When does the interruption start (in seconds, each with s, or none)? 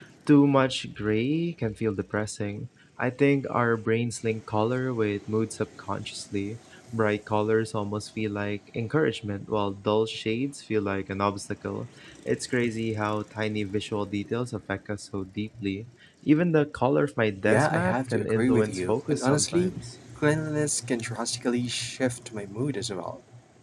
17.4 s